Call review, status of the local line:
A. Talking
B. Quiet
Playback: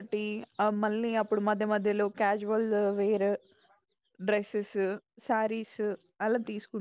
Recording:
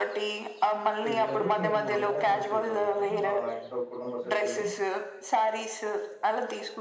A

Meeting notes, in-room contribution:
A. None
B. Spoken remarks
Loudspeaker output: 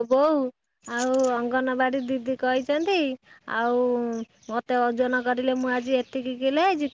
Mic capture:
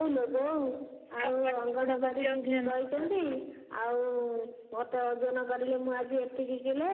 B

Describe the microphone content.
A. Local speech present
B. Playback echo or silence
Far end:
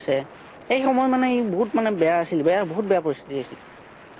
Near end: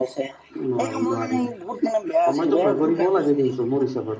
A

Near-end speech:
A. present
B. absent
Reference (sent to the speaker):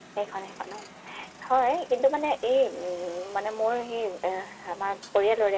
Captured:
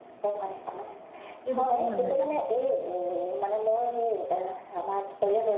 A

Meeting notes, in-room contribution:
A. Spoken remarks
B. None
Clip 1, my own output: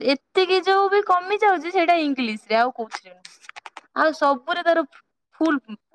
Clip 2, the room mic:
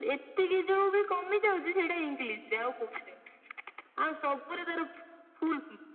B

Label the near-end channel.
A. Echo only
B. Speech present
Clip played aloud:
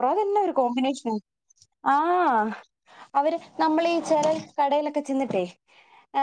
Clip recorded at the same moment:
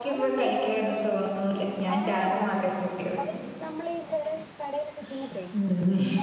B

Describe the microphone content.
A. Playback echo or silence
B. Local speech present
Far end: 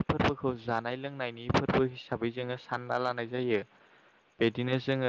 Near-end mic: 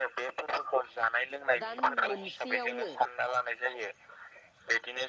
B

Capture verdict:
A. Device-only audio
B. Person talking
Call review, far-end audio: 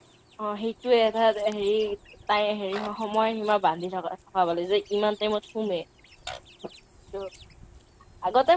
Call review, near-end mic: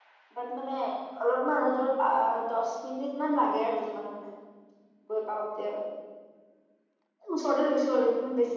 B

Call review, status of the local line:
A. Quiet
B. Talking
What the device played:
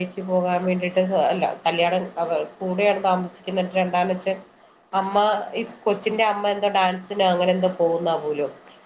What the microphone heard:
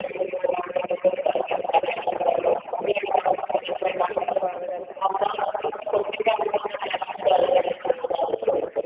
B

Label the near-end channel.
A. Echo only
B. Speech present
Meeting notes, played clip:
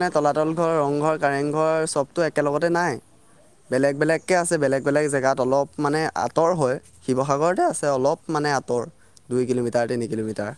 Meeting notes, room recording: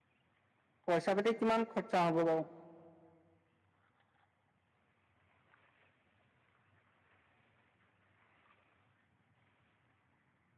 B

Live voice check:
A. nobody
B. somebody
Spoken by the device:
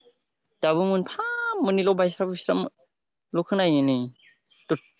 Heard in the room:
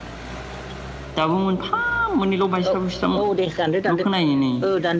B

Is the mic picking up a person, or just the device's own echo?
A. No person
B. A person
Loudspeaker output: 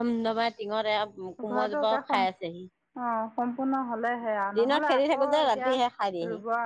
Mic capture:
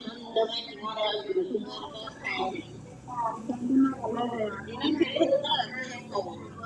A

